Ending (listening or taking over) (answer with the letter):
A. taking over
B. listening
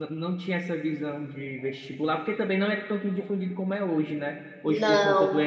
B